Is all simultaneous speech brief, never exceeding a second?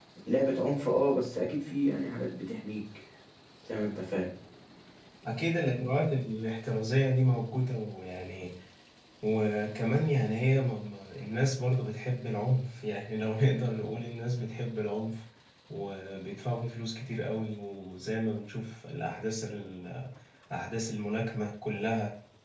Yes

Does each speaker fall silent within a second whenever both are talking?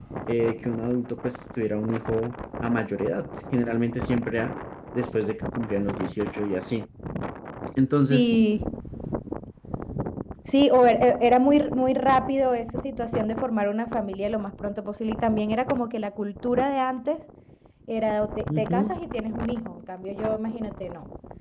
Yes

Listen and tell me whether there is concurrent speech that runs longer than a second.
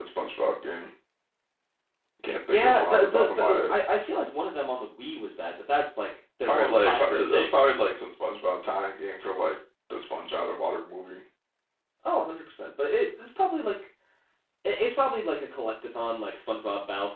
Yes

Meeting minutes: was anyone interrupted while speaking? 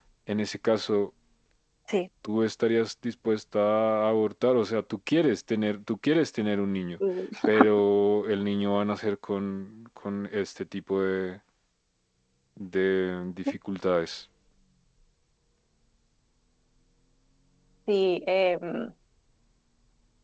No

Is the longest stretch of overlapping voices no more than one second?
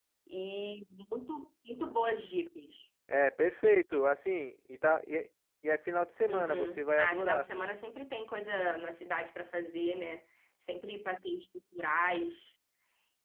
No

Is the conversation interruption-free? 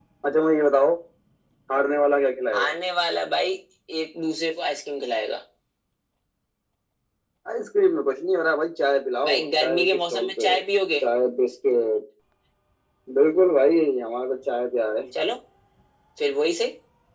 No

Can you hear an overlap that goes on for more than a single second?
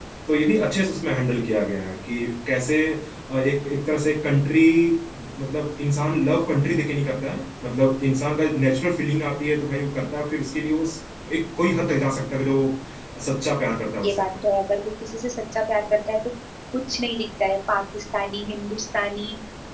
No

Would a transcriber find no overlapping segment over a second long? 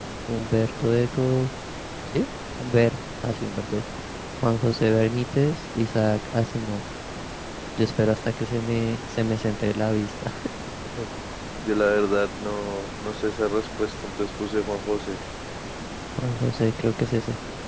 Yes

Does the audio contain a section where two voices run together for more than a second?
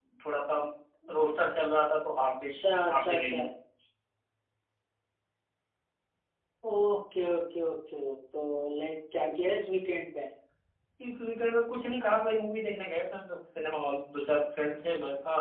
No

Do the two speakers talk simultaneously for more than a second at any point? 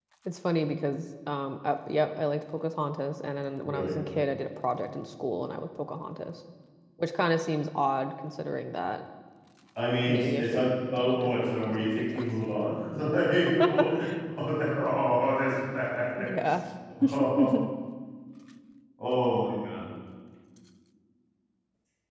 Yes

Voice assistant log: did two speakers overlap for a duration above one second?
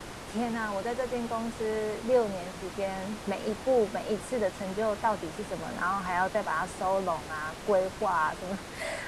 No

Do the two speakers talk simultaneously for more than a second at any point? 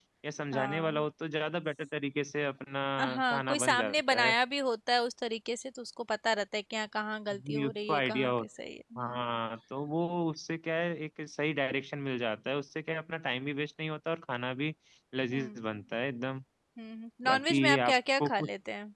Yes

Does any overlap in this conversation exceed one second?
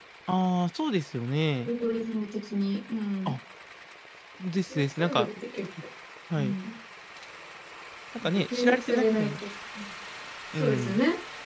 Yes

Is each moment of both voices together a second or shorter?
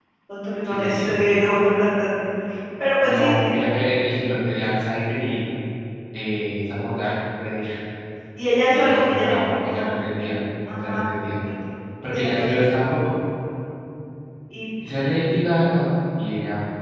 No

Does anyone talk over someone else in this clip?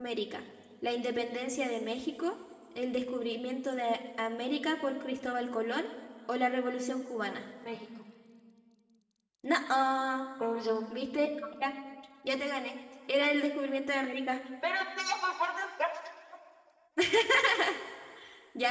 No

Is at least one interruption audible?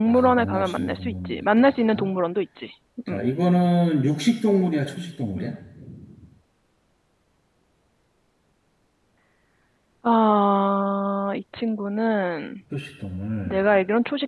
Yes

